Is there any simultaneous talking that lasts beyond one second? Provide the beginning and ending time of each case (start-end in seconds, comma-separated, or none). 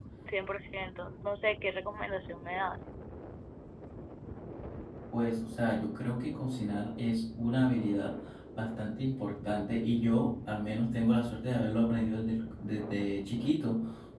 none